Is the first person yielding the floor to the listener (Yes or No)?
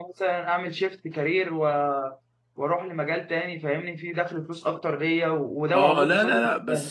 Yes